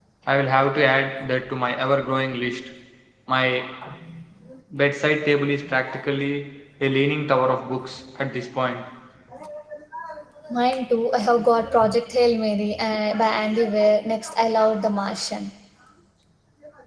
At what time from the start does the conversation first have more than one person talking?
none

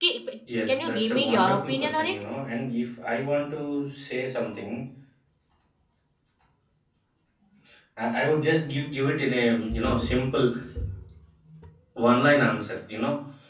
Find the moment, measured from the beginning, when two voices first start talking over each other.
0.7 s

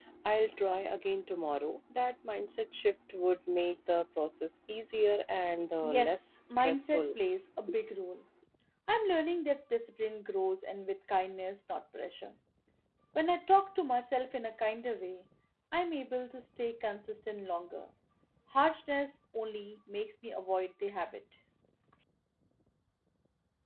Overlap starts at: 5.8 s

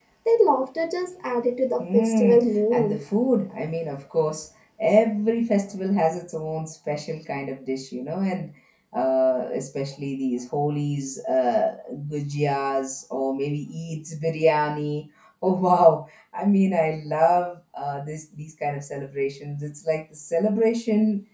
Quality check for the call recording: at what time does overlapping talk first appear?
1.8 s

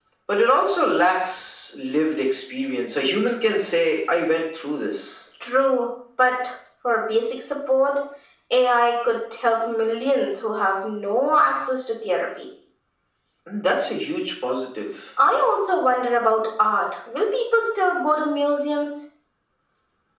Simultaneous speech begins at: none

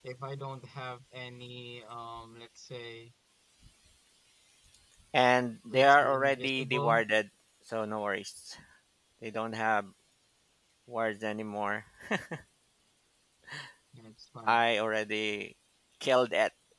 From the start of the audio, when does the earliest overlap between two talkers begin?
5.7 s

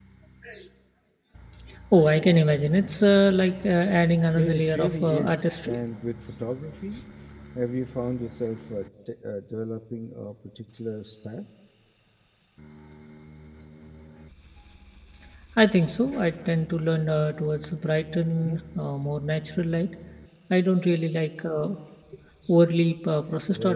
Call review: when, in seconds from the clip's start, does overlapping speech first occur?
4.3 s

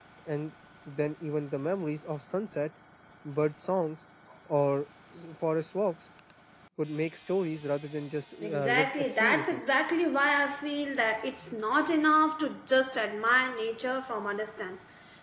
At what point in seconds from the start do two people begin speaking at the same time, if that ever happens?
8.4 s

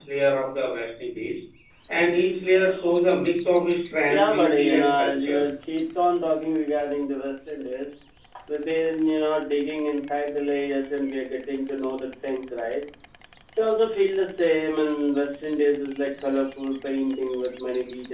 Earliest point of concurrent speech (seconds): 4.1 s

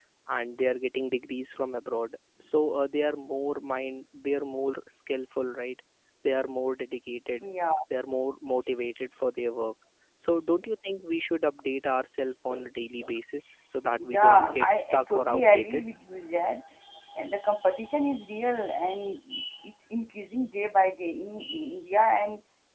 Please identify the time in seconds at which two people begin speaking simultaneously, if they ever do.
14.0 s

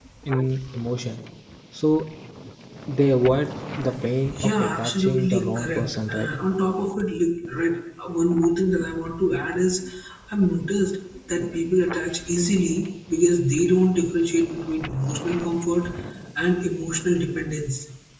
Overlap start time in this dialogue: 4.4 s

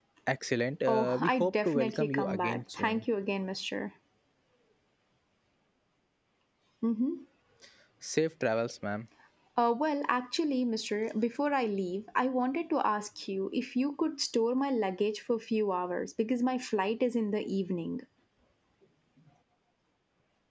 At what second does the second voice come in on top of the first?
0.9 s

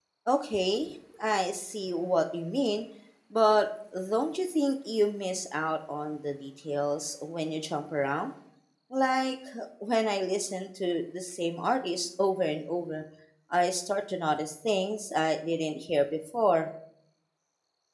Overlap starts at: none

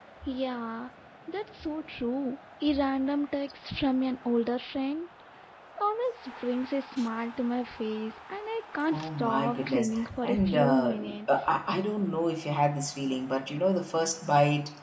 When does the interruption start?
8.9 s

